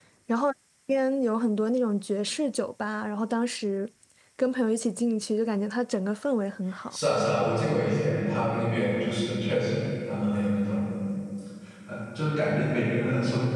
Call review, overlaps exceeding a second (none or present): none